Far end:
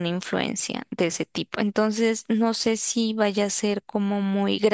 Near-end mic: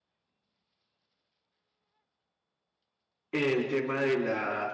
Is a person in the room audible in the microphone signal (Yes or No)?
Yes